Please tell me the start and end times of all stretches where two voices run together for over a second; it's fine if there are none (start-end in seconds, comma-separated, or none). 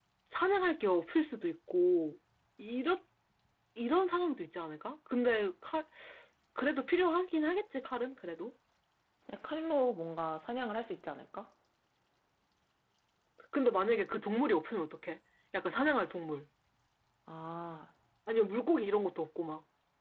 none